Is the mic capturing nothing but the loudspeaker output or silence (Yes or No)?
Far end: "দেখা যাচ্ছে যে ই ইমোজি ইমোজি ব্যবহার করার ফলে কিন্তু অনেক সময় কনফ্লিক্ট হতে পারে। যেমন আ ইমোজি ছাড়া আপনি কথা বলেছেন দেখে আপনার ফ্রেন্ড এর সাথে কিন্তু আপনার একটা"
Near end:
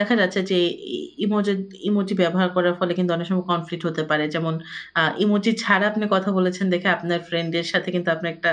Yes